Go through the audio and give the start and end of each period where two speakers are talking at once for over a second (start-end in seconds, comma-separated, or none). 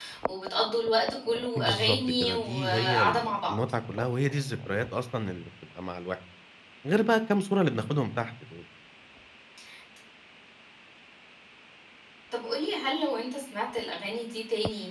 1.6-3.6